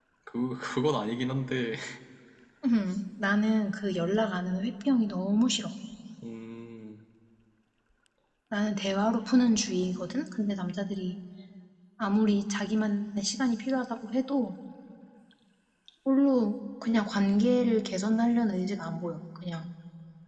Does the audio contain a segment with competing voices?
No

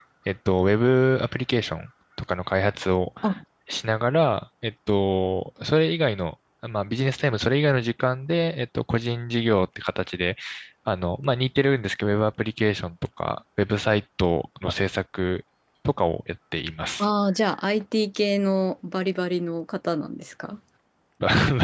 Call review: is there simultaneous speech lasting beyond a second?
No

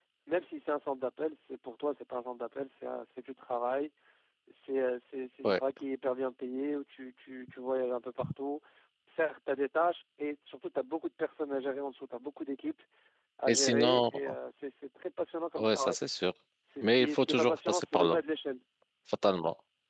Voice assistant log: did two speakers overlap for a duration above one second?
Yes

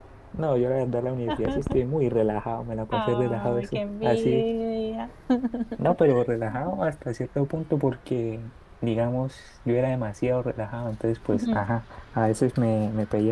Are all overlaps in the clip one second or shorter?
No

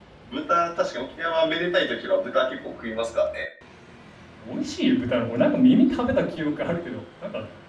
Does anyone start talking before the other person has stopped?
No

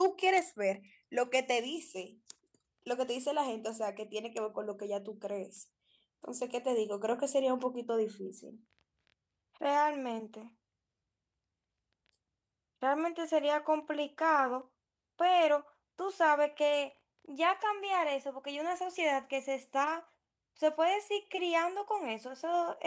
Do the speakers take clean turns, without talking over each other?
Yes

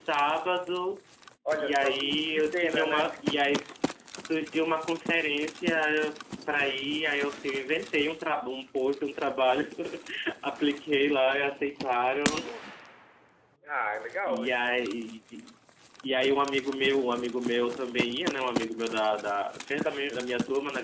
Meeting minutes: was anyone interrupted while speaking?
Yes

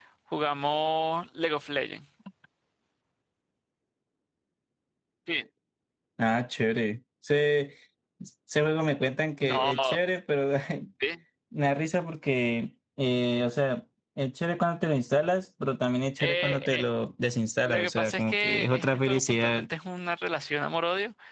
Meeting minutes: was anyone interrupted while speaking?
Yes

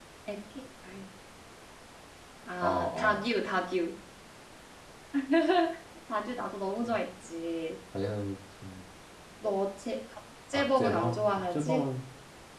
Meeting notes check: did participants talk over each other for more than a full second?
Yes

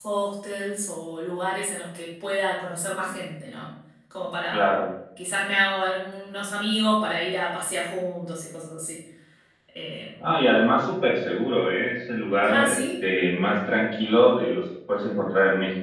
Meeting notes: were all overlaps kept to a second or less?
Yes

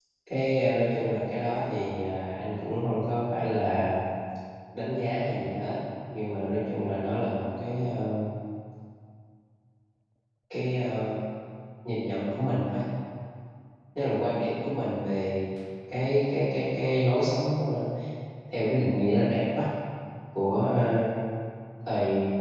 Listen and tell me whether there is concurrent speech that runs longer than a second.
No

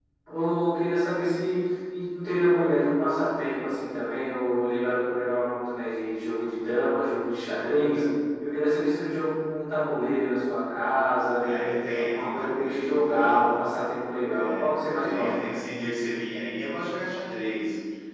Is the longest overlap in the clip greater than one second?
Yes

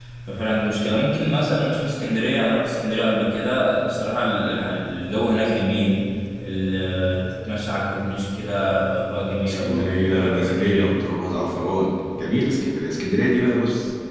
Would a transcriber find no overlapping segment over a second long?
No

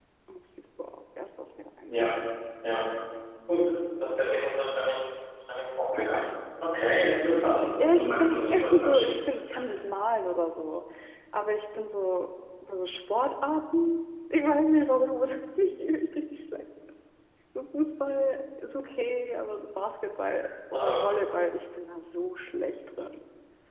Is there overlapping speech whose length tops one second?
Yes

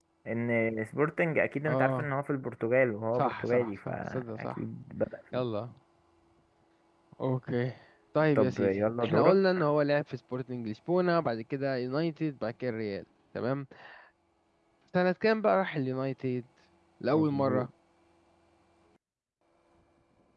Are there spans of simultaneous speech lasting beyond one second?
Yes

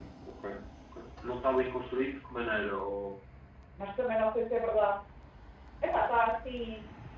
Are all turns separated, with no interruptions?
Yes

